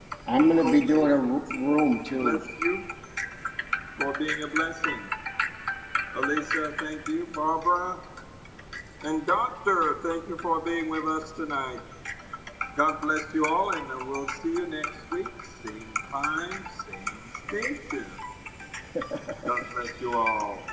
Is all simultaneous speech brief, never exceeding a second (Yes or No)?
No